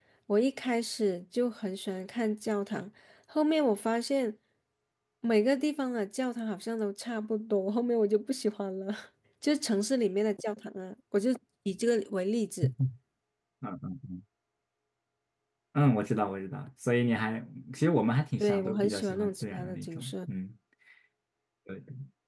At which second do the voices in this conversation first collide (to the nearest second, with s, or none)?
18 s